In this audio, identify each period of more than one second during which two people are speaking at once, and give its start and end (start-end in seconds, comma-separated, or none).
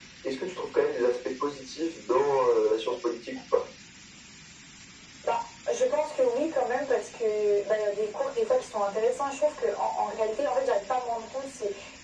none